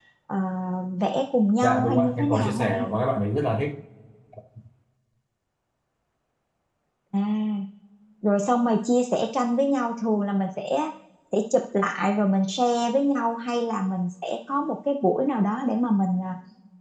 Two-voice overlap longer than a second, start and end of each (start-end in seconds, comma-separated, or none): 1.6-2.9